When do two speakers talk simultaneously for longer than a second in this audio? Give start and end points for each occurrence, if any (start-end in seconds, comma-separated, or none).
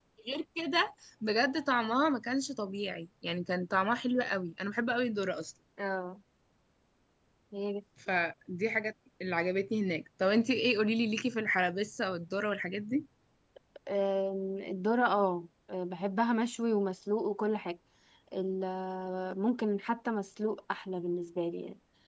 none